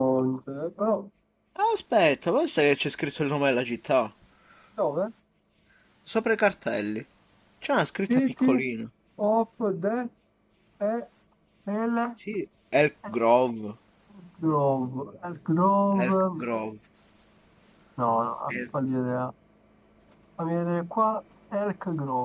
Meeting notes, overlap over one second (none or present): none